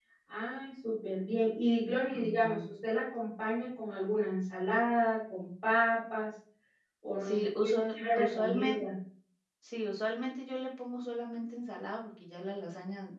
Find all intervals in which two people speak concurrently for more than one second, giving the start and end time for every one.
7.2-8.8

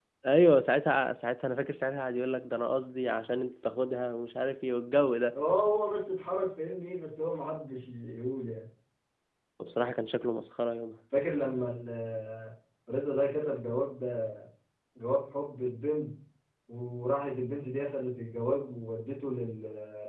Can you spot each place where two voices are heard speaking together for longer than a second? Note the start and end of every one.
none

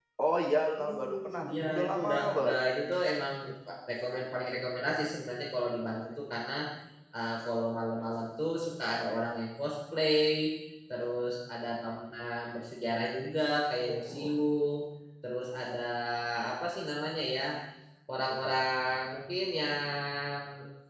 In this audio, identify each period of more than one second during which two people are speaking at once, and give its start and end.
0.8-2.5

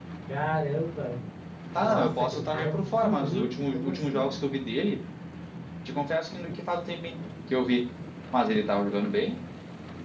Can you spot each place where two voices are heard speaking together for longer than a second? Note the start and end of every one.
1.8-4.4

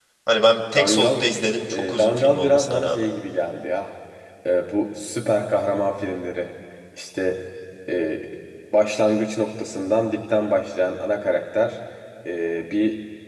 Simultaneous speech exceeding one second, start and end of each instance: 1.7-3.1

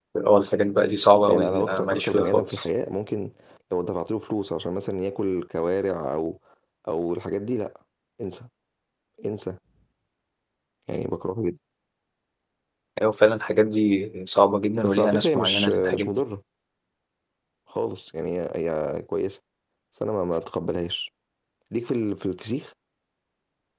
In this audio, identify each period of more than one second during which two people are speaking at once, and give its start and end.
1.3-2.6, 14.8-16.2

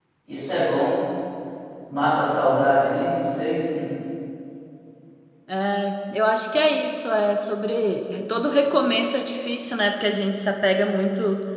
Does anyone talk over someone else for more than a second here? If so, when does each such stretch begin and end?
none

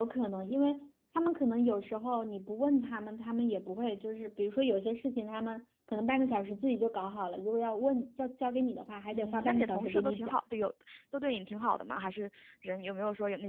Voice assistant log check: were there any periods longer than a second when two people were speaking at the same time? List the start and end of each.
9.1-10.4

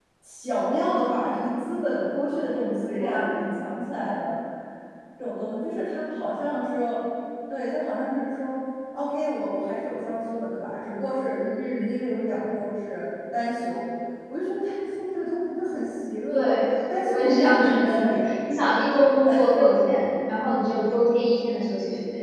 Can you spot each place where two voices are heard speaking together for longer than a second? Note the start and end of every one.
17.1-18.3

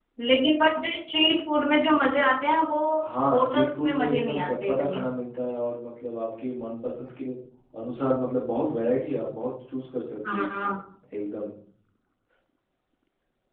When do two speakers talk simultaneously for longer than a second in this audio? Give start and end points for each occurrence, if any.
3.3-5.0

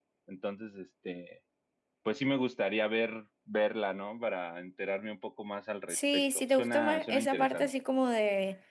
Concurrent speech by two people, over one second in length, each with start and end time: 5.9-7.7

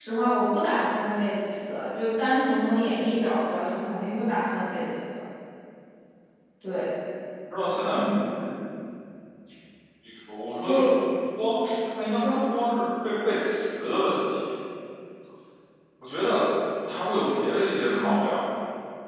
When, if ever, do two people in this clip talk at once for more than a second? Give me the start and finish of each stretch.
none

